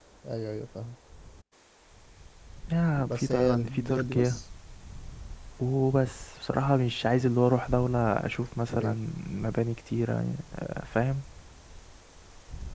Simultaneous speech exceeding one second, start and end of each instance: 3.0-4.4

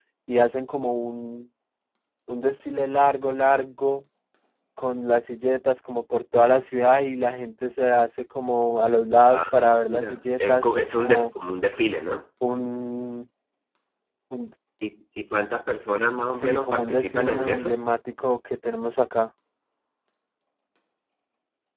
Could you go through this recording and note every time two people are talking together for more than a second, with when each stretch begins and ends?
9.3-11.3, 16.3-17.8

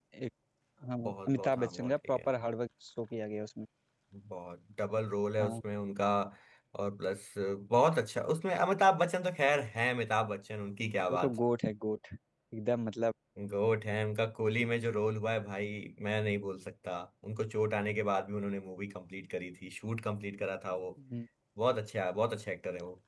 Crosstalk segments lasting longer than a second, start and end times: 1.1-2.3

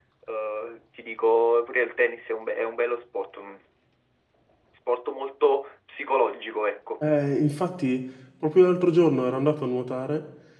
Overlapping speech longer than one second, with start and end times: none

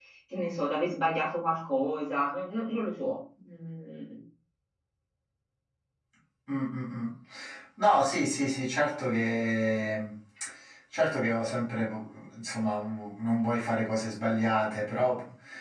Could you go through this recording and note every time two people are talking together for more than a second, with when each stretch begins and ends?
none

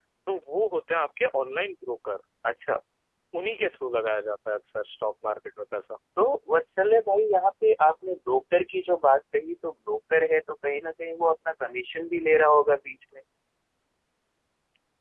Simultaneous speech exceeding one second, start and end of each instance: none

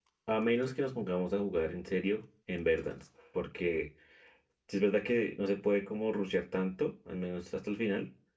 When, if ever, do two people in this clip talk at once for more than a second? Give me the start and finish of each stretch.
none

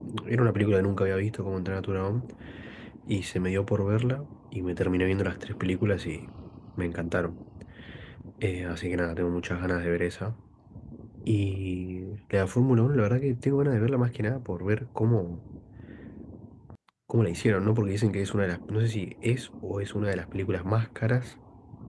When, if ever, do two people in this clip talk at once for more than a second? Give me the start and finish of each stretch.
none

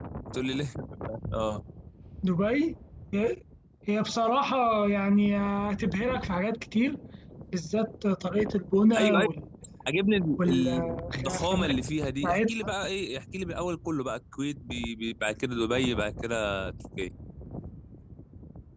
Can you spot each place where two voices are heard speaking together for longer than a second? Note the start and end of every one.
10.4-11.7

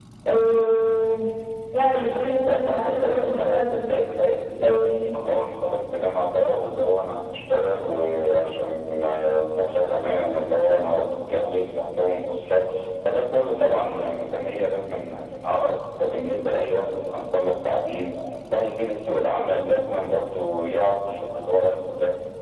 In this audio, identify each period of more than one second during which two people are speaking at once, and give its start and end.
1.9-4.0

